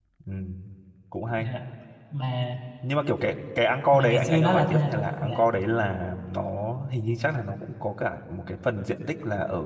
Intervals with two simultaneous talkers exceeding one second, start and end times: 3.9-5.3

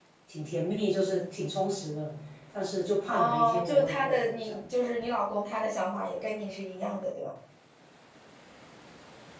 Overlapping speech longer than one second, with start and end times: 3.1-4.6

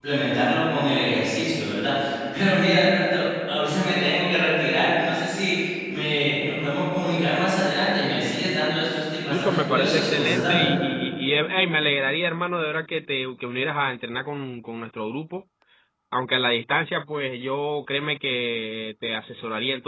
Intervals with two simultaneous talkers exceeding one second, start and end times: 9.3-10.7

